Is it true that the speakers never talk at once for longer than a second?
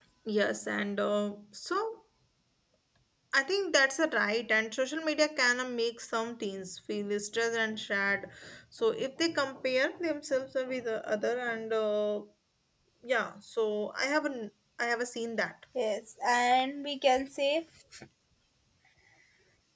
Yes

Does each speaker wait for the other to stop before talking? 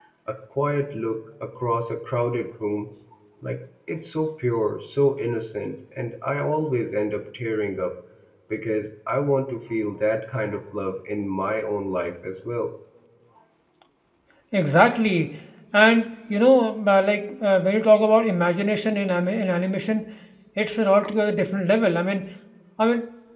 Yes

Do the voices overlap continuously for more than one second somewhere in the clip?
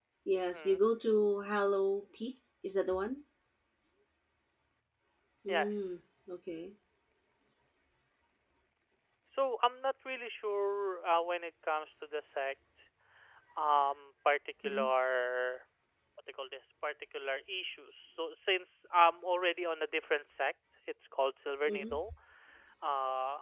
No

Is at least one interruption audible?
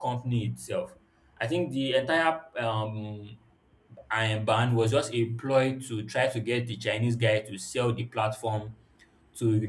No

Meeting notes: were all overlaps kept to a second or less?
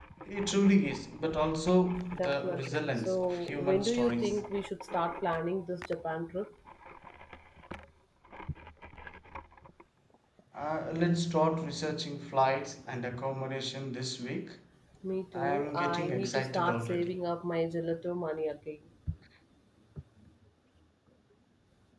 No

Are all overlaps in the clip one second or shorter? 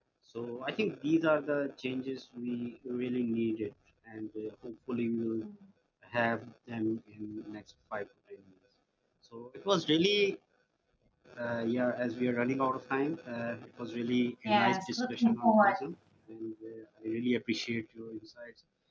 No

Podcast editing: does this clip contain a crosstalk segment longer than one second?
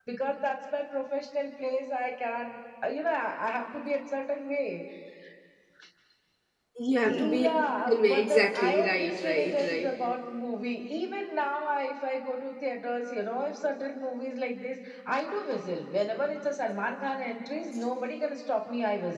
Yes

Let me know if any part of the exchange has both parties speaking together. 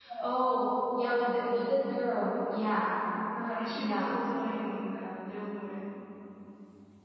Yes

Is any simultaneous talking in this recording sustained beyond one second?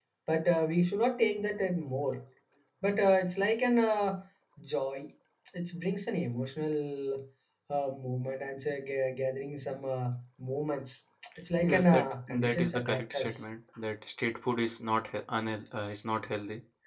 Yes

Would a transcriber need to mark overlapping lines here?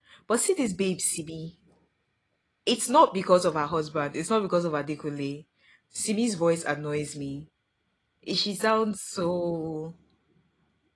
No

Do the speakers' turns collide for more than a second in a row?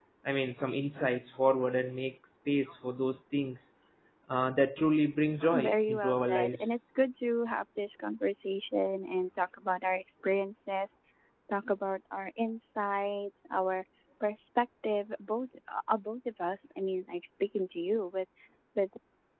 Yes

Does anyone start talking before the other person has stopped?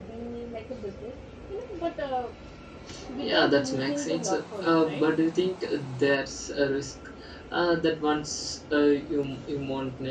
Yes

